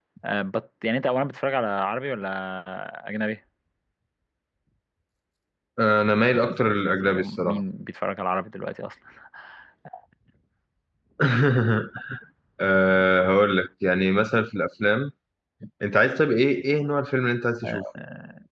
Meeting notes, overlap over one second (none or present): present